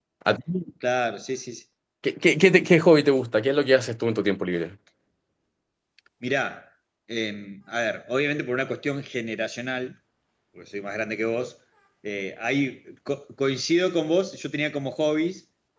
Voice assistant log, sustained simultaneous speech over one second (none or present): none